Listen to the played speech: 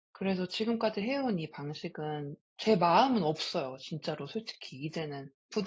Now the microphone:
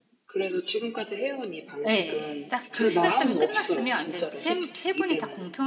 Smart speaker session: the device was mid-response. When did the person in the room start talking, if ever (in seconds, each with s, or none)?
1.9 s